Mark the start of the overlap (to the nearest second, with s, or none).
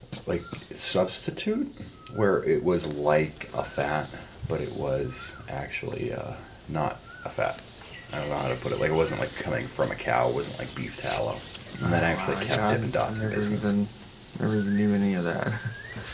12 s